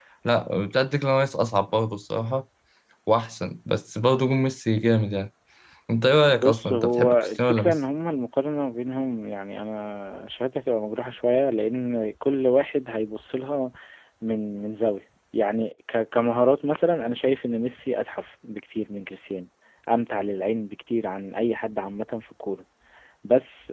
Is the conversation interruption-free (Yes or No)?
No